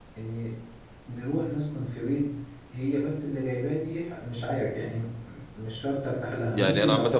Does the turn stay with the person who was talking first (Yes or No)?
No